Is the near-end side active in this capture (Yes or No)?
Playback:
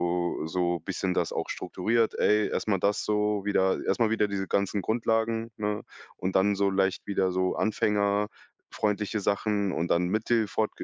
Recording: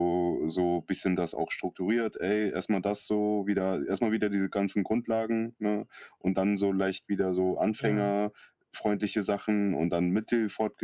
Yes